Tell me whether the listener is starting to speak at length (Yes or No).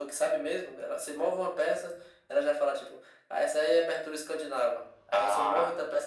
No